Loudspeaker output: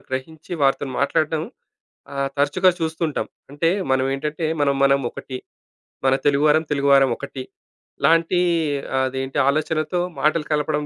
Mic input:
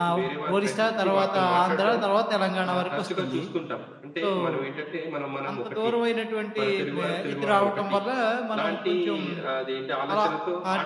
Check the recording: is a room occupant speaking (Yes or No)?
Yes